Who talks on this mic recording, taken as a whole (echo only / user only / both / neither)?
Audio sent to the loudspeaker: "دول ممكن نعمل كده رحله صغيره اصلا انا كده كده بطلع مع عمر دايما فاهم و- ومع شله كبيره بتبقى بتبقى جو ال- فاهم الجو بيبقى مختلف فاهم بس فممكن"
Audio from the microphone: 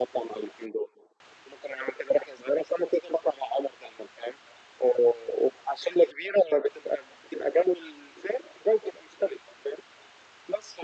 echo only